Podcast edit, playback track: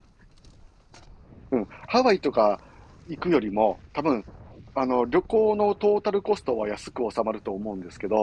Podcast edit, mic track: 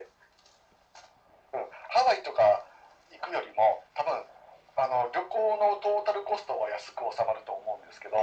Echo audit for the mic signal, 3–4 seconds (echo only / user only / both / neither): echo only